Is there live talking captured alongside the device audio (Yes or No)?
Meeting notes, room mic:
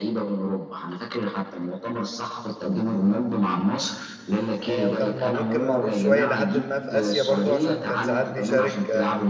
Yes